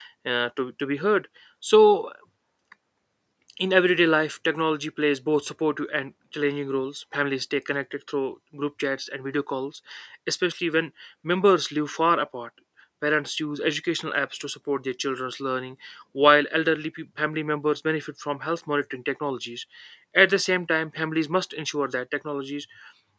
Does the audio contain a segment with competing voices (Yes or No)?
No